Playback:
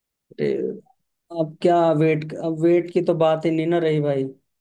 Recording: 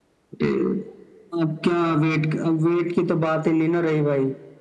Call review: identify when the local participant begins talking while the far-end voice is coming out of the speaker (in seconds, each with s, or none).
none